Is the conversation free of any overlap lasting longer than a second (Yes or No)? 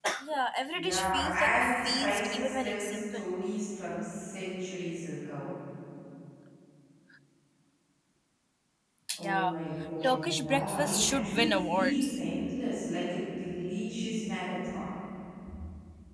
No